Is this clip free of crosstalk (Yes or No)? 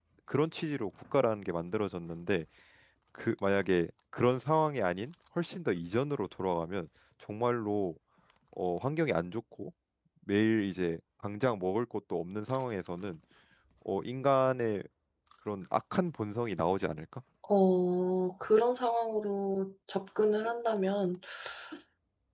Yes